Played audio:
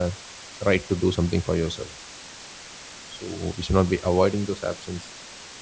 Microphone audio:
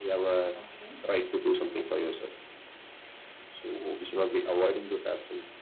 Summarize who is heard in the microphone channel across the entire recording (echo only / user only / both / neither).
both